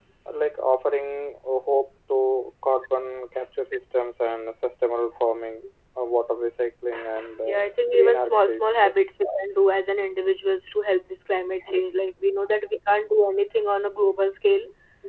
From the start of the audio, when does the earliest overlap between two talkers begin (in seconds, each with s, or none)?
7.4 s